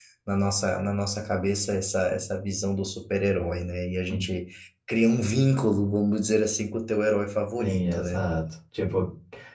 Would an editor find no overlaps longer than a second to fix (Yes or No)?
Yes